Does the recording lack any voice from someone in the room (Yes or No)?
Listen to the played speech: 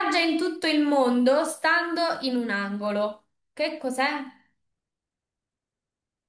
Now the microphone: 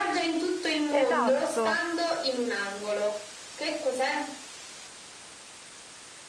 No